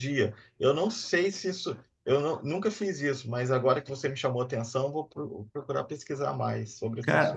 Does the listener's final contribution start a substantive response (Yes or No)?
Yes